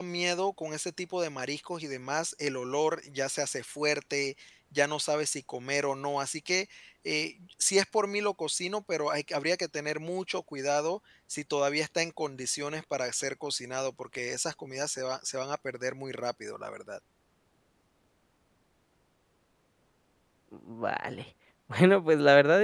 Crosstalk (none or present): none